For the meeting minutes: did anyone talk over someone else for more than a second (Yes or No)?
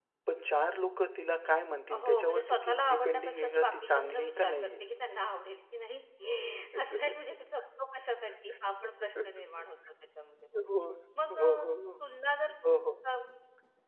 Yes